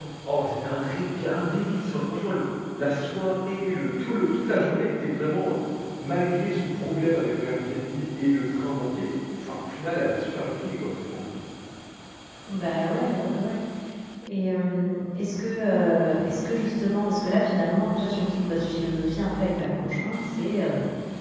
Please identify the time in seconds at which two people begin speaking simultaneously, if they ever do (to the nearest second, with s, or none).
none